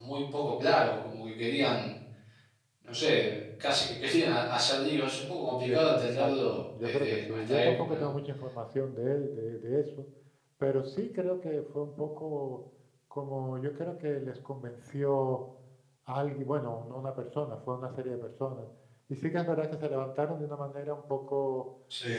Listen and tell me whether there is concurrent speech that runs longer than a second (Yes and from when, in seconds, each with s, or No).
Yes, from 5.6 s